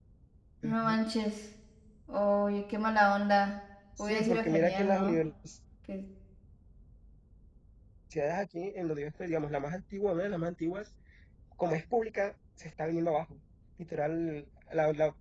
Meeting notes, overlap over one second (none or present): present